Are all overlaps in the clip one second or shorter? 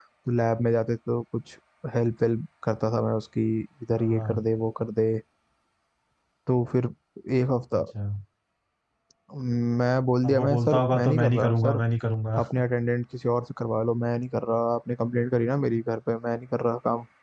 No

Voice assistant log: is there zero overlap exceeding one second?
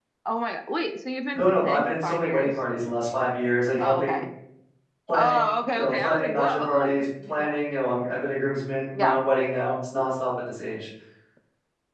No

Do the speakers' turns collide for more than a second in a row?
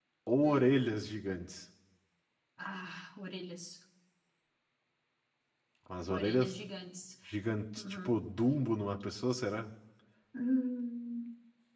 No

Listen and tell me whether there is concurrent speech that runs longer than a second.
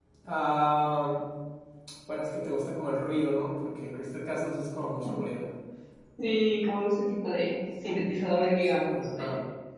No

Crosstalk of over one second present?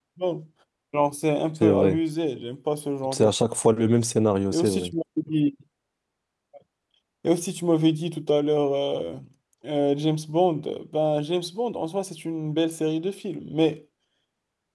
No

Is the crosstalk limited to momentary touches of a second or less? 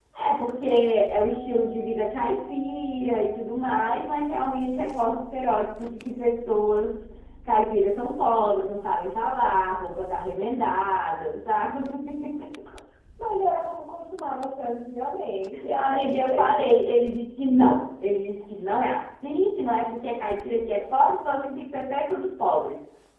No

